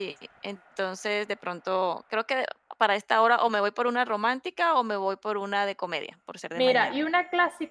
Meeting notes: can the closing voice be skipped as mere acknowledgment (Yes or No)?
No